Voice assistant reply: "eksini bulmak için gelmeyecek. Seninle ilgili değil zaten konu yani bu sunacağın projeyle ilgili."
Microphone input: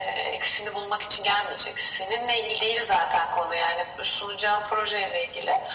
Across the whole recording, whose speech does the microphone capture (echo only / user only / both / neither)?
echo only